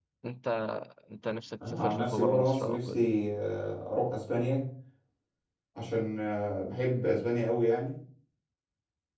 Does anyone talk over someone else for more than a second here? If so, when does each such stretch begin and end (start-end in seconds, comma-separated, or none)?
1.7-3.0